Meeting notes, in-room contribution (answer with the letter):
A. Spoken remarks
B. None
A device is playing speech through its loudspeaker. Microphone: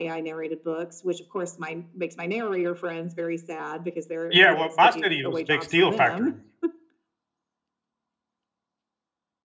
A